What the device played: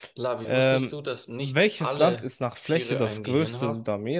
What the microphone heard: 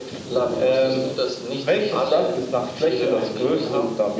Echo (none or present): present